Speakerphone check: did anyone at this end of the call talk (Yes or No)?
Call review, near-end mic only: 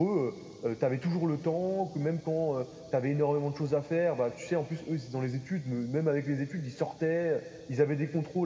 Yes